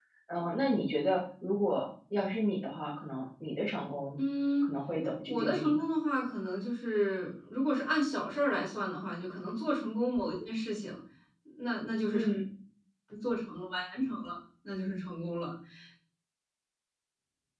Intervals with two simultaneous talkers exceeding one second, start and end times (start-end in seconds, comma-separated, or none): none